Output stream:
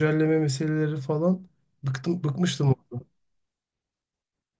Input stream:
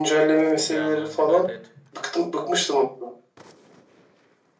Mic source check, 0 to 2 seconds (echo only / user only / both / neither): both